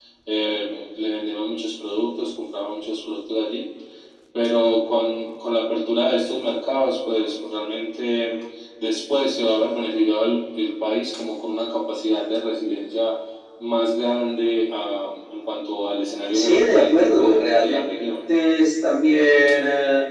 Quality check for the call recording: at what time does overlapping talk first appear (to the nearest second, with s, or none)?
16 s